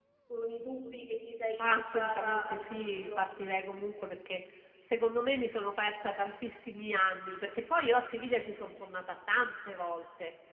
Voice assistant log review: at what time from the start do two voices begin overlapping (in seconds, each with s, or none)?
1.6 s